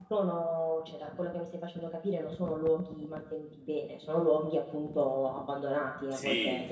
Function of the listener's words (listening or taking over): taking over